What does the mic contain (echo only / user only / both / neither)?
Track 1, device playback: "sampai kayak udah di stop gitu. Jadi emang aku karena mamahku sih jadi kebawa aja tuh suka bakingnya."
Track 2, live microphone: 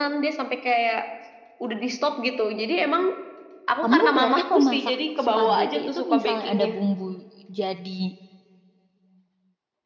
both